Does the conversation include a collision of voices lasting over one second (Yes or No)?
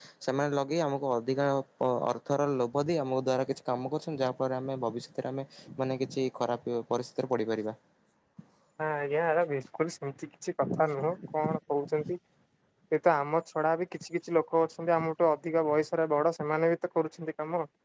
No